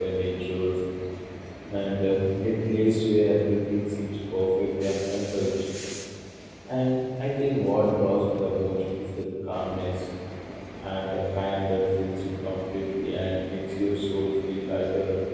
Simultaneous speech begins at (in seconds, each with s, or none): none